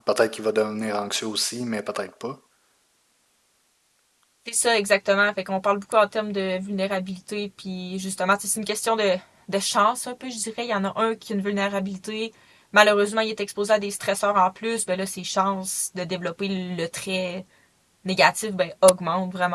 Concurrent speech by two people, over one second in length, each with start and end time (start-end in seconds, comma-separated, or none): none